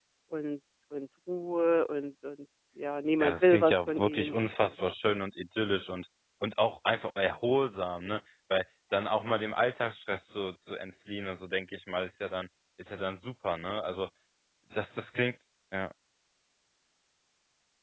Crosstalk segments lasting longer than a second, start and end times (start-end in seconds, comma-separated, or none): 3.2-4.7